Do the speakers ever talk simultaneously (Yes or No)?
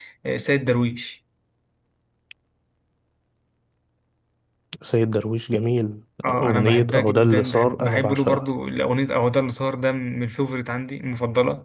Yes